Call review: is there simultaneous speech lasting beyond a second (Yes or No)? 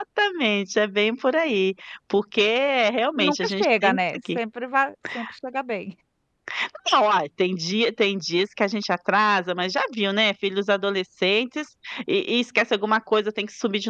Yes